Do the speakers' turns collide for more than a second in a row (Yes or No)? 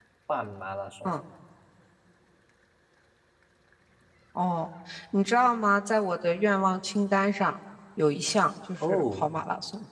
No